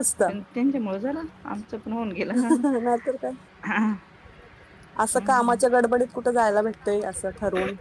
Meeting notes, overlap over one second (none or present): none